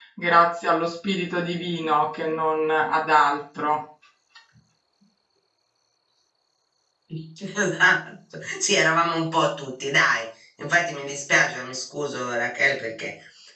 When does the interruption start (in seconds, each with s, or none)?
none